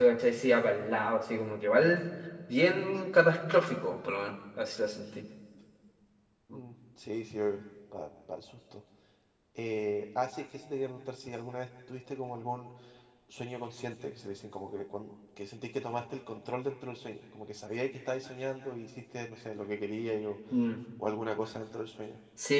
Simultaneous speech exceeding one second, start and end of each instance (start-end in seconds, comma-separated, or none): none